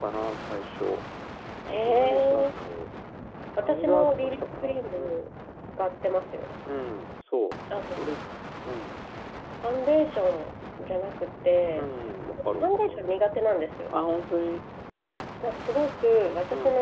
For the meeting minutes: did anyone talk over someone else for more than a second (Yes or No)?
Yes